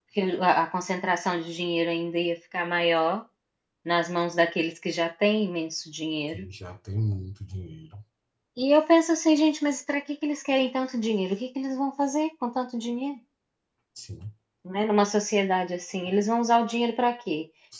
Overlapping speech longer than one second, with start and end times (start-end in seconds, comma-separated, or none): none